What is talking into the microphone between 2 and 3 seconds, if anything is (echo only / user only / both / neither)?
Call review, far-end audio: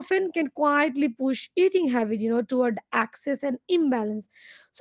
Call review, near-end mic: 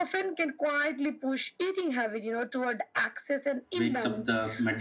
echo only